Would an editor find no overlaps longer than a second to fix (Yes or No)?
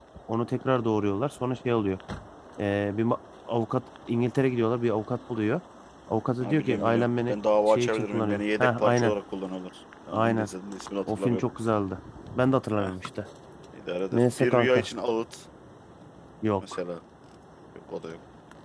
No